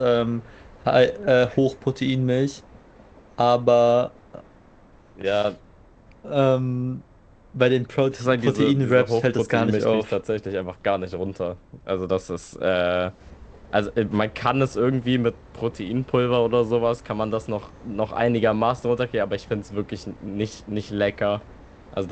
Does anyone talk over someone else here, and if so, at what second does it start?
8.1 s

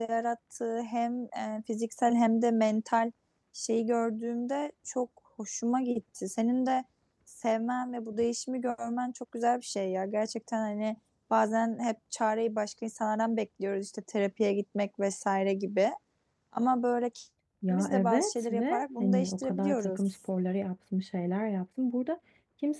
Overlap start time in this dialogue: 17.6 s

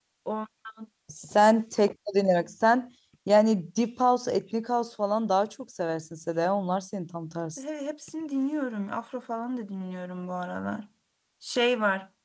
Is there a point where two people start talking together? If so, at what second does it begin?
none

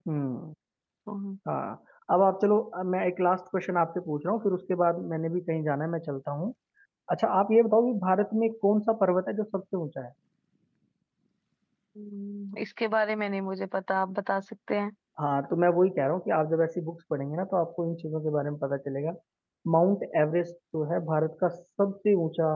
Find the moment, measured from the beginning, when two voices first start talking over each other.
none

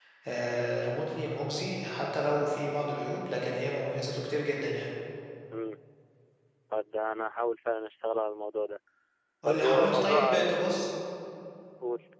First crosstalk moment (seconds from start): 9.4 s

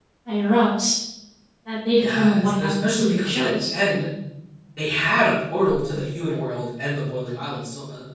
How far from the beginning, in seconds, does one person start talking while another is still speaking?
2.0 s

